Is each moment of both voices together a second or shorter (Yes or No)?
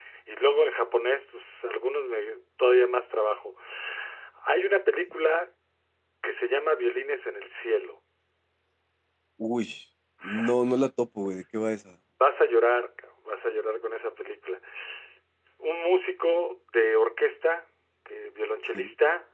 Yes